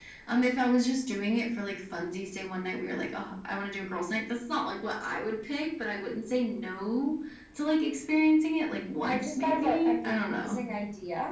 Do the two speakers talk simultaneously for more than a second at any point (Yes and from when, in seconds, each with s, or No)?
Yes, from 9.0 s